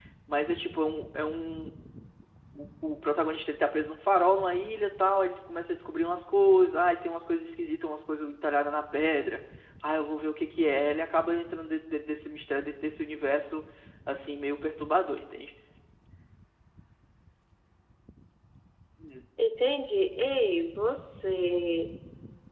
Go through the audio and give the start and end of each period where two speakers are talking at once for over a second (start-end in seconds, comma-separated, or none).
none